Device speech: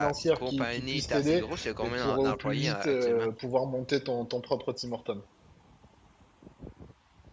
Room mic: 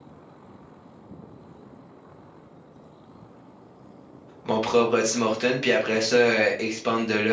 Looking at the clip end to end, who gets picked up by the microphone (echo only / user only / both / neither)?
user only